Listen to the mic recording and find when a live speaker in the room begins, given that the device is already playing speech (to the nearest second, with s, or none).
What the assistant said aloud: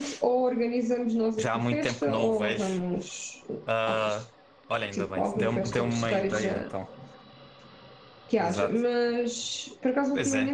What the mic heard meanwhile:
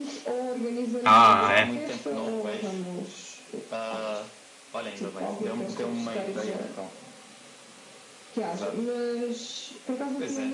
1 s